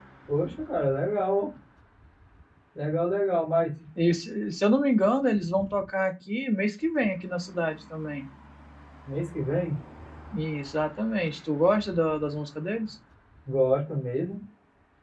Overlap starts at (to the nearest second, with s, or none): none